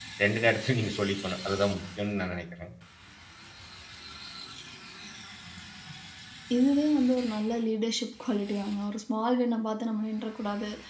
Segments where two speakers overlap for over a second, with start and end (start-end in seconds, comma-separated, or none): none